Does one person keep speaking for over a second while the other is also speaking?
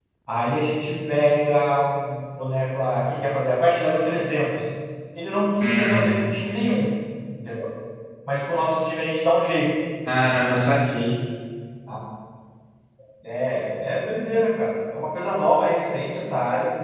No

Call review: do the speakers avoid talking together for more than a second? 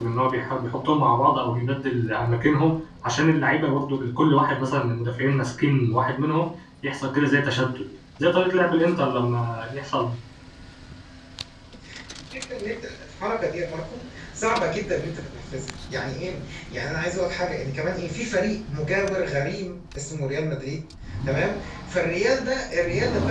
Yes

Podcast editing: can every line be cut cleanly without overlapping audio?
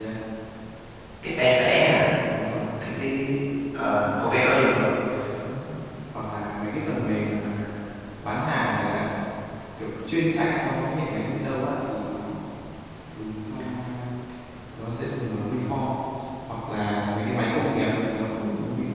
Yes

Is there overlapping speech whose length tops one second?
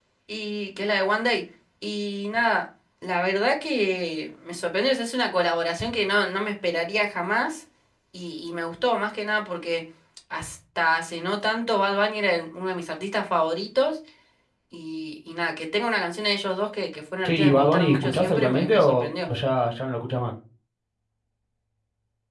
Yes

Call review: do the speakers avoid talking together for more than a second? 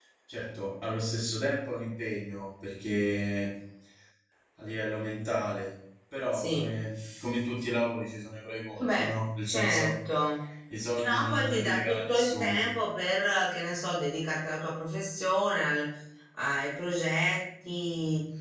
No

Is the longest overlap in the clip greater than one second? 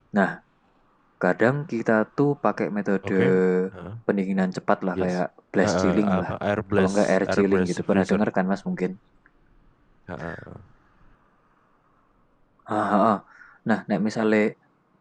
Yes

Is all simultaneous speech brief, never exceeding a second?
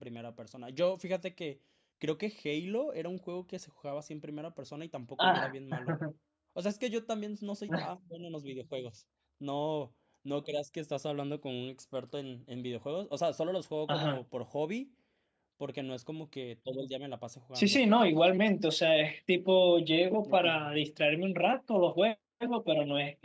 Yes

